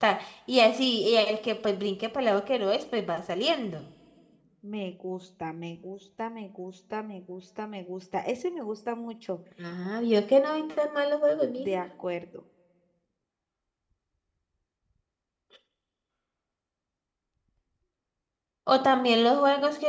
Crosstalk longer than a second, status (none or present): none